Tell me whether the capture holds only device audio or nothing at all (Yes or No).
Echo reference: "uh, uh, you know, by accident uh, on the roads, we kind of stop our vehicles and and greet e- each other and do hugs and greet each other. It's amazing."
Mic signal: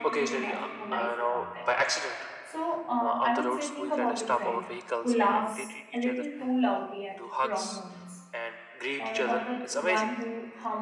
No